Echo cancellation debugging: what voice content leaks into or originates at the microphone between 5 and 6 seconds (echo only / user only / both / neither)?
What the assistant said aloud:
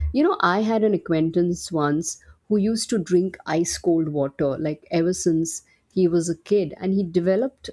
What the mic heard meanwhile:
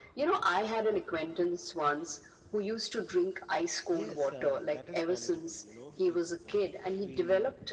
both